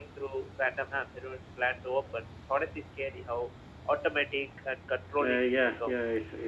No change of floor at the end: No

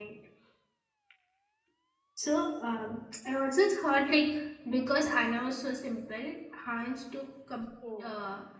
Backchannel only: Yes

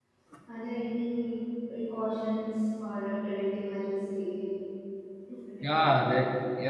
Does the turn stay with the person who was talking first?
No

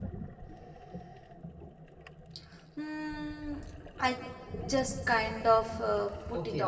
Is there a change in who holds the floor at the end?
Yes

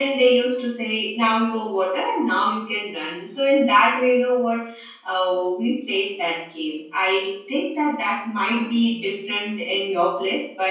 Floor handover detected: No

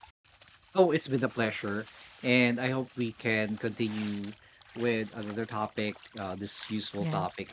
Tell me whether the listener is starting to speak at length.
No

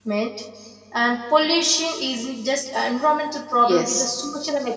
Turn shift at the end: No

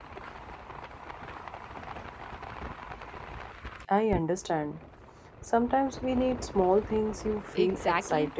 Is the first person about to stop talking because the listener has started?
Yes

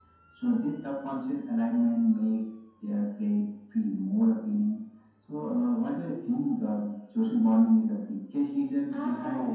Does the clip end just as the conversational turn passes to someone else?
Yes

